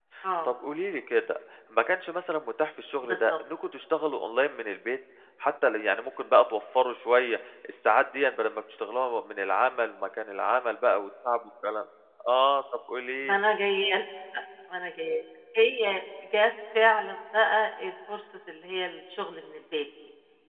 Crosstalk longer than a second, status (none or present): none